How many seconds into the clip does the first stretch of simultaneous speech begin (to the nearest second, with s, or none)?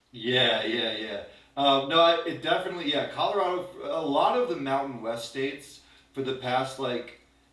none